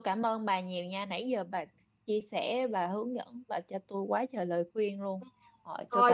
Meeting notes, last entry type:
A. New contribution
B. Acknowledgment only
A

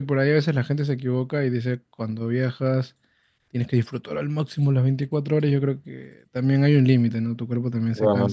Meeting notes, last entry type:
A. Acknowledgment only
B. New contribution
A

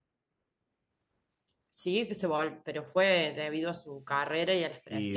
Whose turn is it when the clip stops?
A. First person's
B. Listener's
B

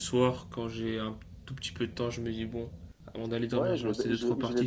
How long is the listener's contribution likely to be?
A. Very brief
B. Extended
B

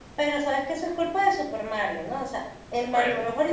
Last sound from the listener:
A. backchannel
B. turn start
A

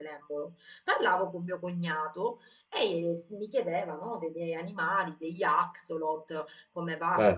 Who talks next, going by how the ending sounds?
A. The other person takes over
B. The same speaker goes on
B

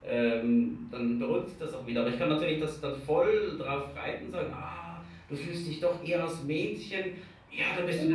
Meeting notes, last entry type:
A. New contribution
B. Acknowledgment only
A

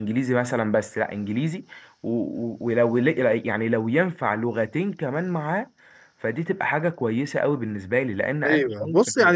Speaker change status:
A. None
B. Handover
B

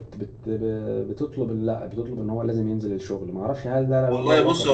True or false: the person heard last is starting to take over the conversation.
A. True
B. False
A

